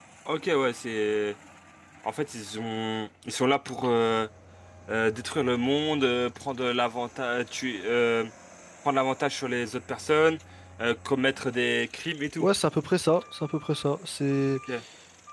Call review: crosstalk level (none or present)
none